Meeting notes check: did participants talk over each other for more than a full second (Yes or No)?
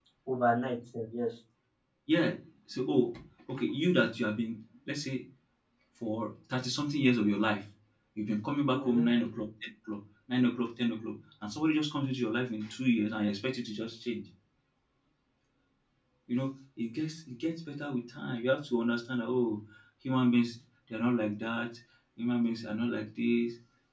No